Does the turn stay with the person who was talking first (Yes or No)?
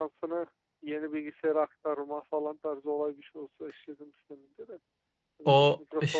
No